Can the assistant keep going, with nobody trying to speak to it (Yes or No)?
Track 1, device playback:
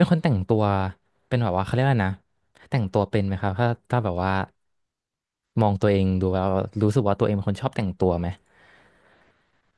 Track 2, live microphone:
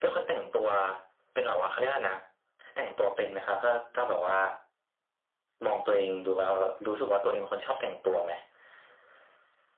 Yes